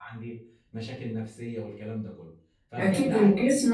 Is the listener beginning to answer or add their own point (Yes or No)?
Yes